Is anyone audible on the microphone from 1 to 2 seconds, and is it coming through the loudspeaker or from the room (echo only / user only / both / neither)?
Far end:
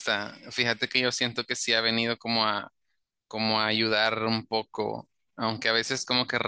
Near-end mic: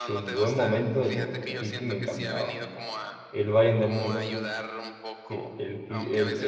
both